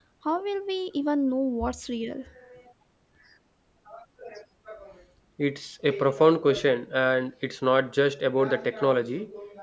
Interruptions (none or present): none